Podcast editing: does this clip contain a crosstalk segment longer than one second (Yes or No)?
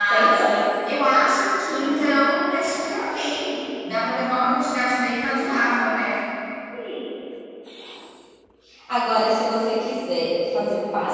No